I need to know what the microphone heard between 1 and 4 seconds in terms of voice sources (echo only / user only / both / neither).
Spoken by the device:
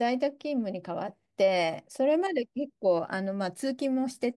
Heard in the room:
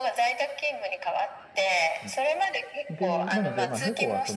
both